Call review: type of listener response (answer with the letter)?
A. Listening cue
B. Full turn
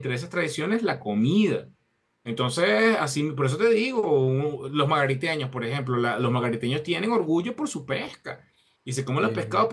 A